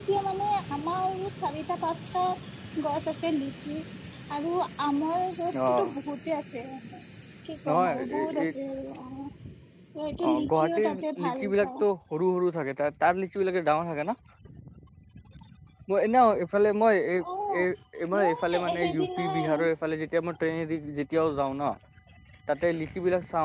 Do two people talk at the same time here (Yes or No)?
Yes